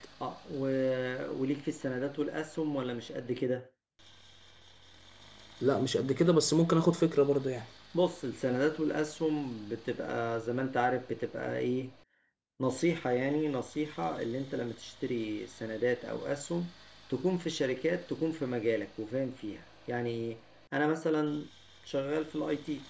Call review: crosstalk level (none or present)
none